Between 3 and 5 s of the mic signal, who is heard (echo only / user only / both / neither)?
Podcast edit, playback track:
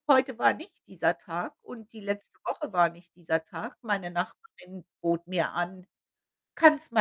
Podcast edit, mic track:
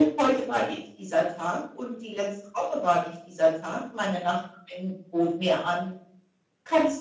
echo only